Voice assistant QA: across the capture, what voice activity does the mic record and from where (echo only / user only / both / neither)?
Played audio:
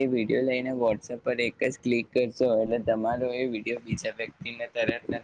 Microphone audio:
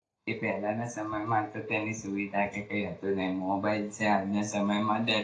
user only